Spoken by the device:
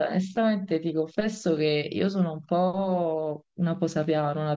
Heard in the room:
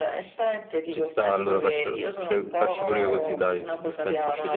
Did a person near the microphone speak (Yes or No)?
Yes